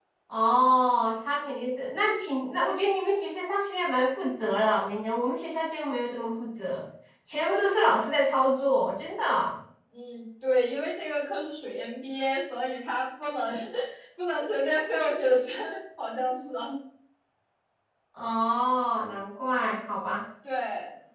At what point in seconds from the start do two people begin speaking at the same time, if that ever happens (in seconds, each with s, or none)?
none